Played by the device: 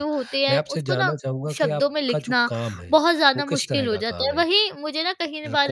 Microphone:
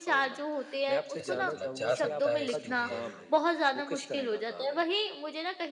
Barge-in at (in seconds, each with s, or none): 1.2 s